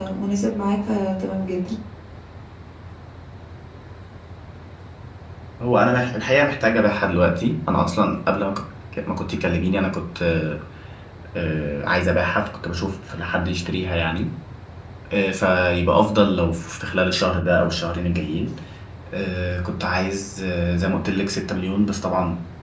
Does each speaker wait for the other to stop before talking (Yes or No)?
Yes